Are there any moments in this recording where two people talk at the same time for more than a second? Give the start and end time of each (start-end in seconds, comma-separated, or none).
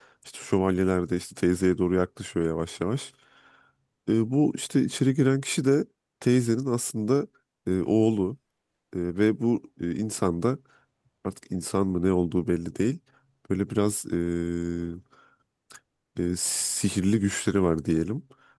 none